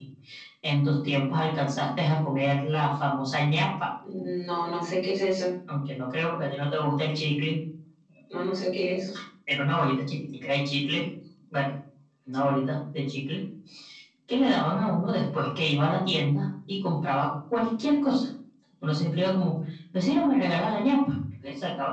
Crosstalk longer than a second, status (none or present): none